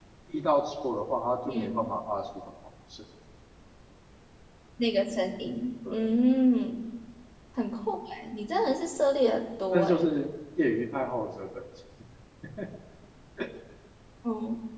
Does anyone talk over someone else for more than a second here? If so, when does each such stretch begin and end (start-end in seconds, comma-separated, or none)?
none